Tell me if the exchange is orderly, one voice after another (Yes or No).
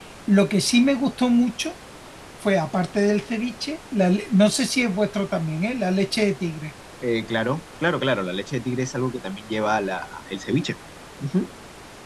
Yes